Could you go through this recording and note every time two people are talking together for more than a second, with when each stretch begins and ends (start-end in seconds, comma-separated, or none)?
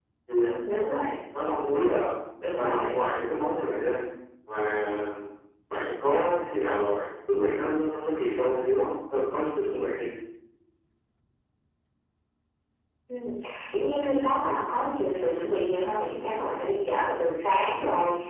none